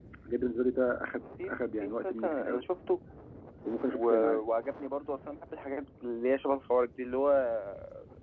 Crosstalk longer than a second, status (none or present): present